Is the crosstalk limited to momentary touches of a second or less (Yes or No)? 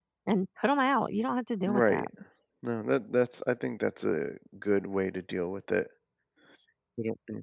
Yes